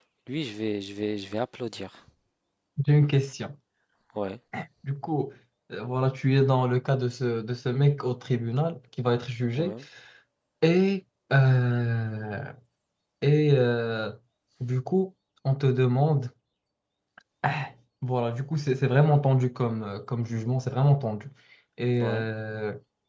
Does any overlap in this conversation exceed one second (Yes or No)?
No